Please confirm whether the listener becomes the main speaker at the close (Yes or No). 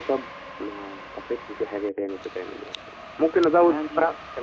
No